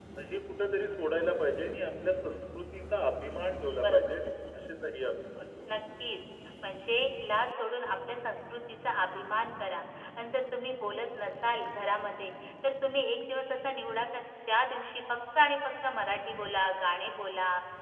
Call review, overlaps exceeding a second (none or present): none